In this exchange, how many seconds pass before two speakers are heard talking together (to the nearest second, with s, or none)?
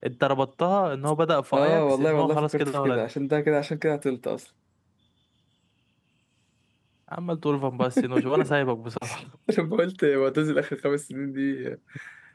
2 s